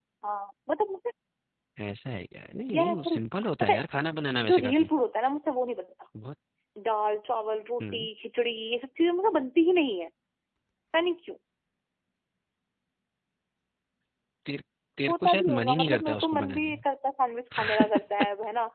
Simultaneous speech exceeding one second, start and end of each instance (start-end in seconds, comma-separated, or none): 15.1-16.8